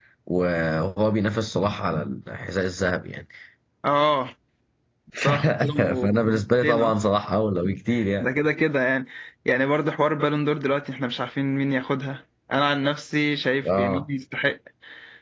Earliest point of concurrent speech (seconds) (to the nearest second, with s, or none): 5 s